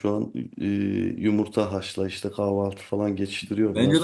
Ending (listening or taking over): taking over